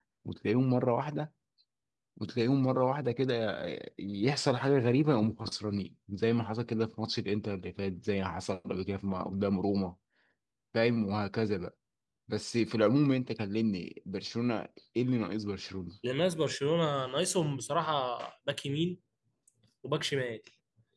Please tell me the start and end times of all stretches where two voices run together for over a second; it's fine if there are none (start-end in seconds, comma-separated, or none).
none